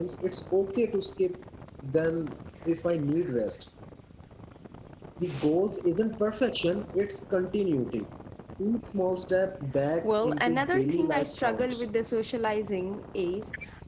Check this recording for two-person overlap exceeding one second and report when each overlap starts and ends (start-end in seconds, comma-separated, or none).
10.0-11.8